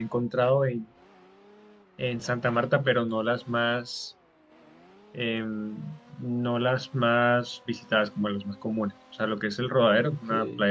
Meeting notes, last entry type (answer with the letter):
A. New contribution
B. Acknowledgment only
B